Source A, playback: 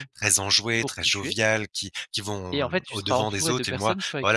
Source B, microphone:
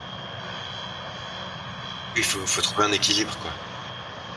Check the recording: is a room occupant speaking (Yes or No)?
Yes